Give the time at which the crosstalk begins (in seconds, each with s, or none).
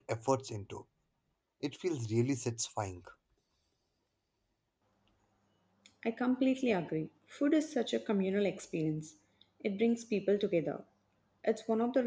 none